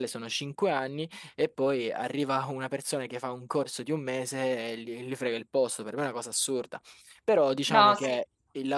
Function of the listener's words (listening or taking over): listening